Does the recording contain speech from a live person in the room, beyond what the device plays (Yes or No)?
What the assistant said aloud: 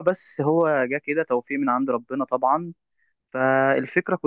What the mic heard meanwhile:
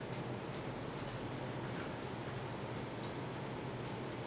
No